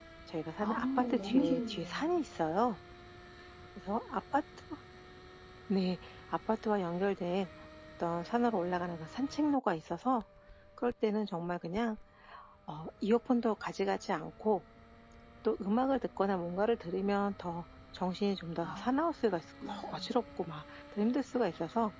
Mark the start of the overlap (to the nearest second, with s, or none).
1 s